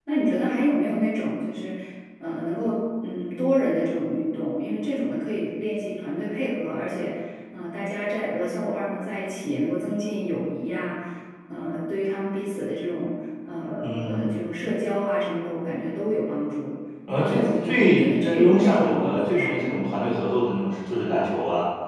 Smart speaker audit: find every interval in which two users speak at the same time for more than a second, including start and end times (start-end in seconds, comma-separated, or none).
17.1-20.1